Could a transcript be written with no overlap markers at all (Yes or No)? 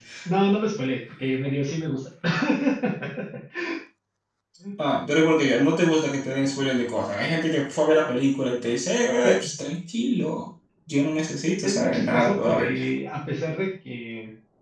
No